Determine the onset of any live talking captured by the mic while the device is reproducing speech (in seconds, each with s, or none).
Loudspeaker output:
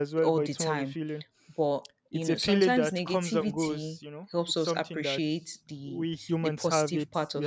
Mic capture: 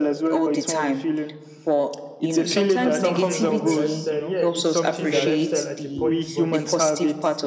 2.3 s